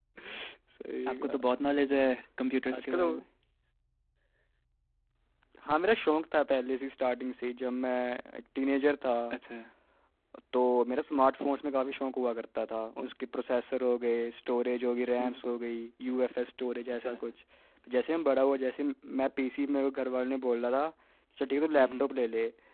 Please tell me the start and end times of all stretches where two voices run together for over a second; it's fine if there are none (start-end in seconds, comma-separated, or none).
none